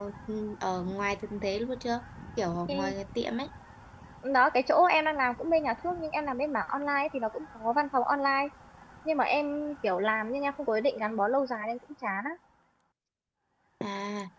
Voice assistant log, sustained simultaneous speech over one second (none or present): none